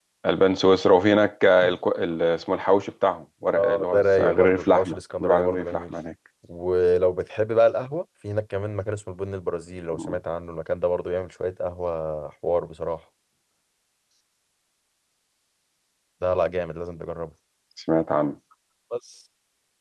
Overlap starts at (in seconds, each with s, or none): 3.6 s